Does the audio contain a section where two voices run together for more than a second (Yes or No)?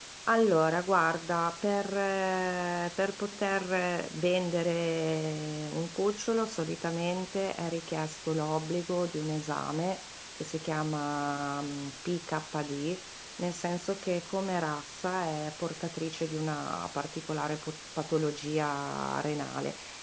No